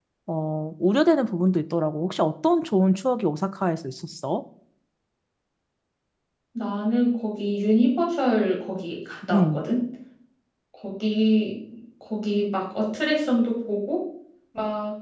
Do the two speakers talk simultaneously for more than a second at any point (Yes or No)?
No